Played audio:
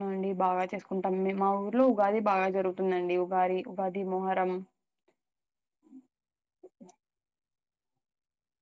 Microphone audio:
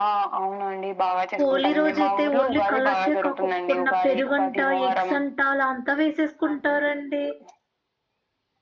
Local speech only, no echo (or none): హోలీ రోజు అయితే ఓన్లీ కలర్సే కాక్కక్కకున్న పెరుగు వంట ఎగ్స్ అంట అలా అంత వేసేసుకుంటారండి